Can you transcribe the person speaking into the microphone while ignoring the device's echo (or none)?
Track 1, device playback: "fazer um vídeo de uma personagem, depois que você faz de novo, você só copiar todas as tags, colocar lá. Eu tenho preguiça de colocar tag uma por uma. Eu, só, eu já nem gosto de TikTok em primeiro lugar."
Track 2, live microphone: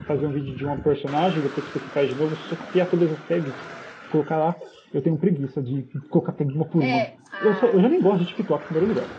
É. Ah,